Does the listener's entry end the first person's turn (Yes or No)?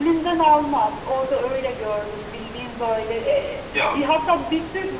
No